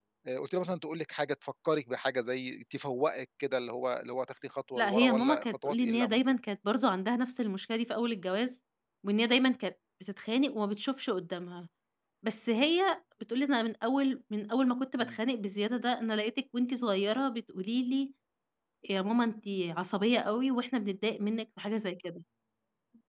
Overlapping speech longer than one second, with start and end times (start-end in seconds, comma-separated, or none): 4.8-6.2